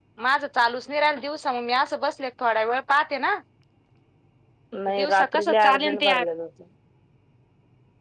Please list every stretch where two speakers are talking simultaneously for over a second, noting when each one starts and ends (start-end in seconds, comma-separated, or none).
4.9-6.2